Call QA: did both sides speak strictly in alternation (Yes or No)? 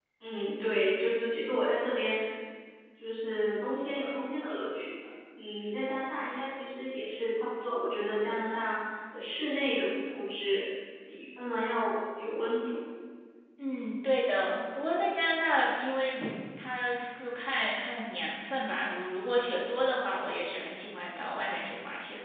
Yes